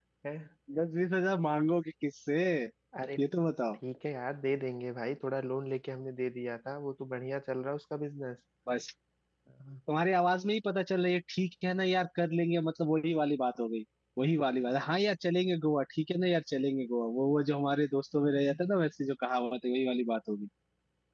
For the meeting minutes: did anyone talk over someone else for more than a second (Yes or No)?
No